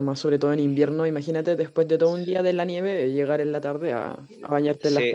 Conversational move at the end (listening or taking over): taking over